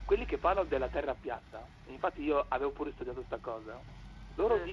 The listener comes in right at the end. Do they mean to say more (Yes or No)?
No